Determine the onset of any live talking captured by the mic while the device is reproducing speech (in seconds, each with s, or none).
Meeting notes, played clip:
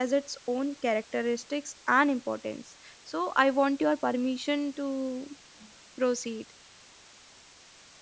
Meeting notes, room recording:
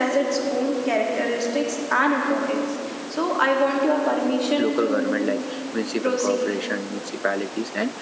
4.6 s